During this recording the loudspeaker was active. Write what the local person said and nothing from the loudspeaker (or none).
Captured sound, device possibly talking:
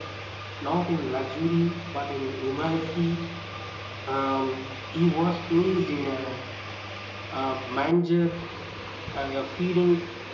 none